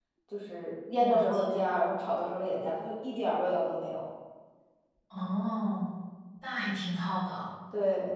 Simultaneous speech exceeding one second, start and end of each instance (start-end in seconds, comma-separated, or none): none